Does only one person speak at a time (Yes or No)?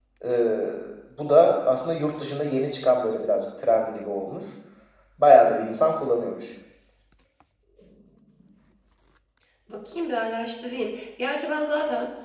Yes